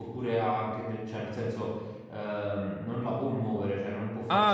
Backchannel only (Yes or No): No